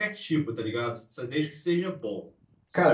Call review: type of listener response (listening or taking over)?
taking over